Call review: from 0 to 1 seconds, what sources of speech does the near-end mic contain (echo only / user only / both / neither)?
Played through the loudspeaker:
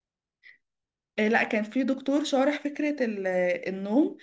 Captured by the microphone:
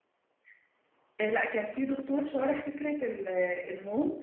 neither